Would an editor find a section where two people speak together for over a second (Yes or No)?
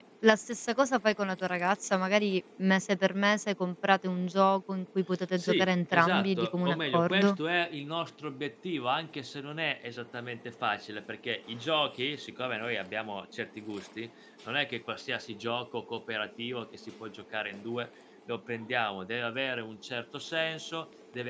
Yes